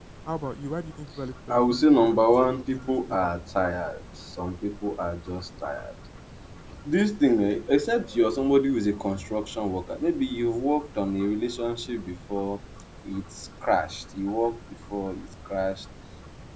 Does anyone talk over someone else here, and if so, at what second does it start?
1.2 s

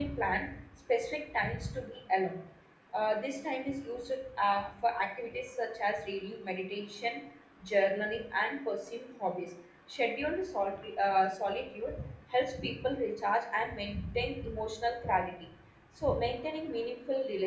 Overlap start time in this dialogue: none

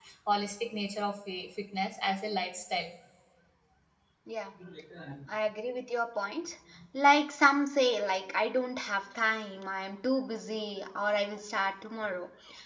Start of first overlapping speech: none

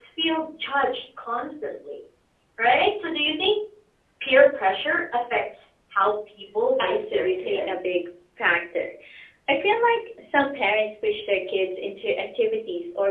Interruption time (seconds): 6.8 s

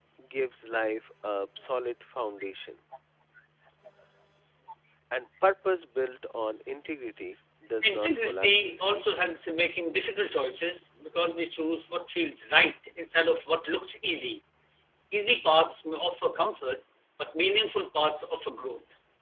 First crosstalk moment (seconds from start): 7.8 s

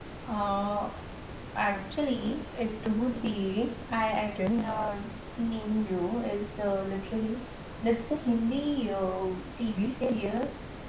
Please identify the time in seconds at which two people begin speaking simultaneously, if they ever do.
none

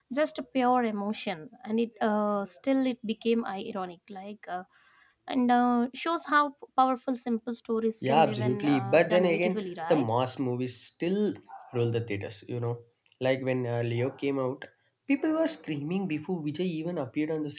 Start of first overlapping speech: 8.0 s

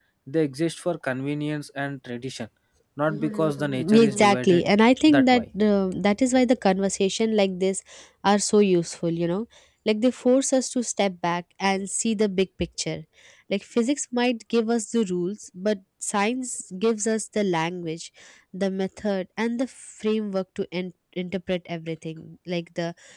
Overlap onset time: 3.3 s

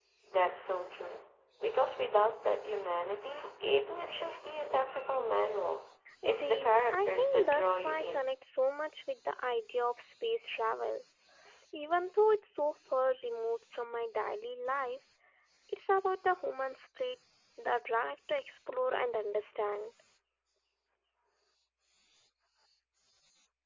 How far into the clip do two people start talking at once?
6.2 s

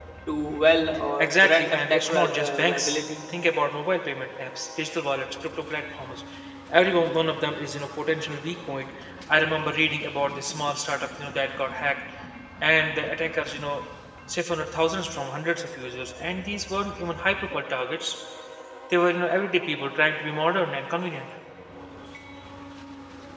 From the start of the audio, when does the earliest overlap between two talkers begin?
1.2 s

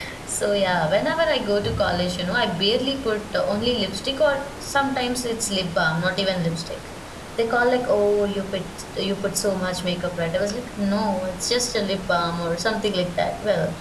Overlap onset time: none

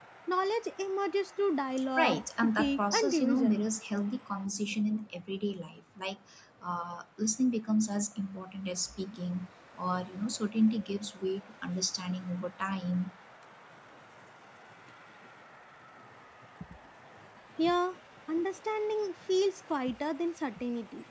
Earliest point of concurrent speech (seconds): 2.0 s

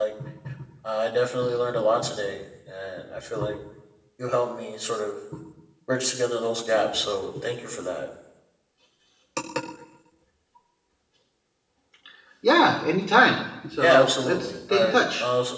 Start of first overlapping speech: 13.8 s

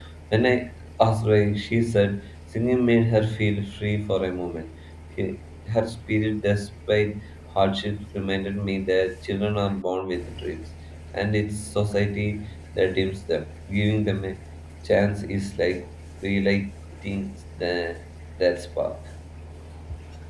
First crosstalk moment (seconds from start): none

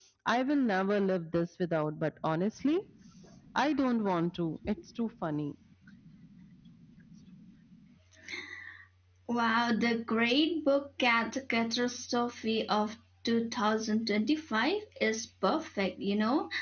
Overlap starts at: none

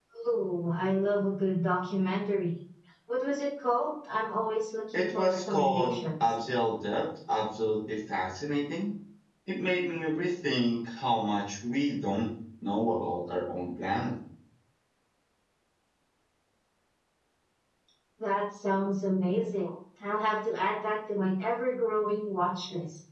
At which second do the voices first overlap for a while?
4.9 s

